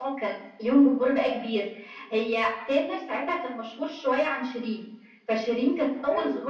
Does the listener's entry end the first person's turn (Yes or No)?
No